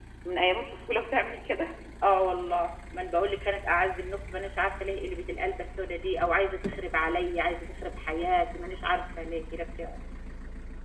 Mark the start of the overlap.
none

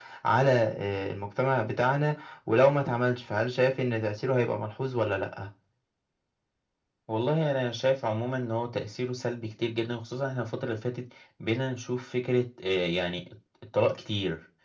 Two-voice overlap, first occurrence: none

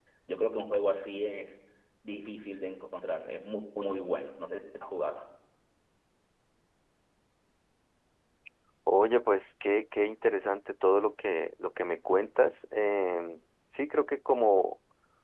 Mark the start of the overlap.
none

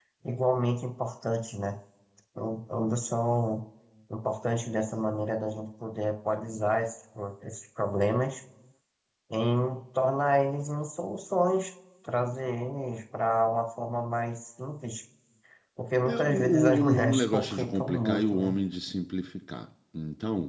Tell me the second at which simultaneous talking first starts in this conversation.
16.0 s

